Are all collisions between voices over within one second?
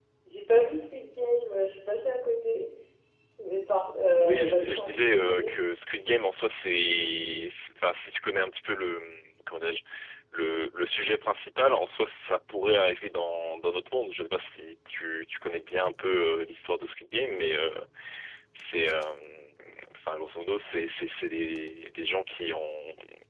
No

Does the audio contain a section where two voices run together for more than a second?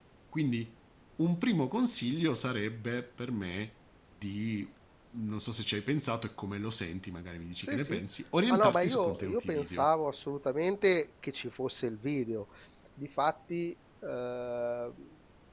Yes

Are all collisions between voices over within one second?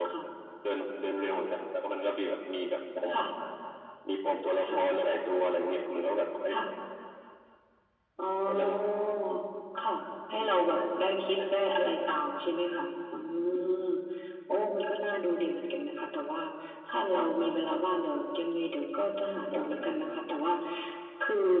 Yes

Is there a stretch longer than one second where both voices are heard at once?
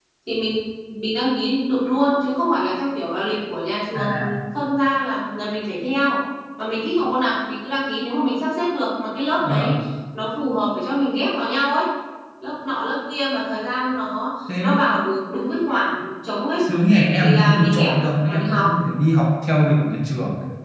Yes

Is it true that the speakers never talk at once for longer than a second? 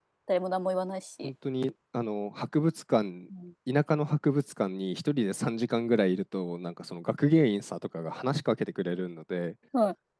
Yes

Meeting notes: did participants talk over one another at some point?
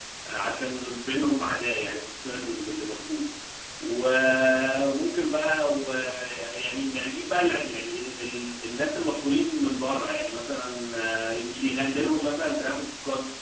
No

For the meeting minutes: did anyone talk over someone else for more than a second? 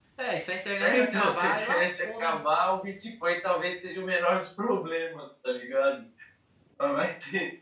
Yes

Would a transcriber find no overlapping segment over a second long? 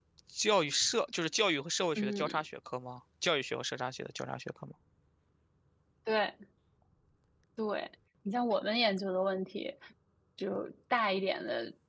Yes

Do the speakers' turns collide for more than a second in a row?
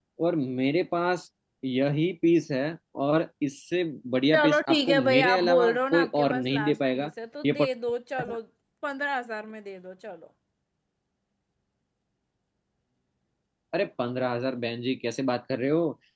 Yes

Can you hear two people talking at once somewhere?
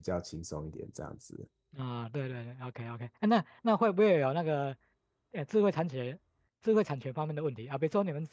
No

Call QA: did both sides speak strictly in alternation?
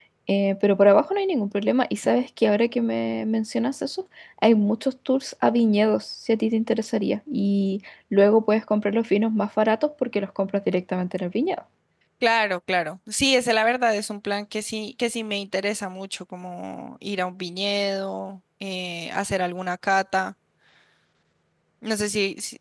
Yes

